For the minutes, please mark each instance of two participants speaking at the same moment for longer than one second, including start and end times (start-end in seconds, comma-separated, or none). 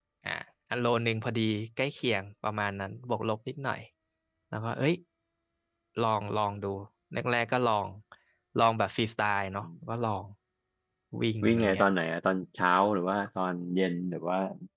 none